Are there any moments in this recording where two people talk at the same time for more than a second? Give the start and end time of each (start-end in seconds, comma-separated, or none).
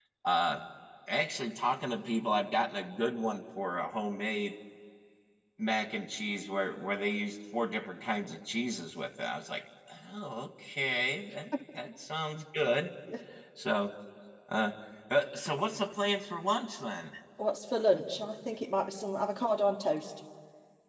none